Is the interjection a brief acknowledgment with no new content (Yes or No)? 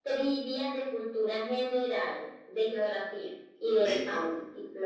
No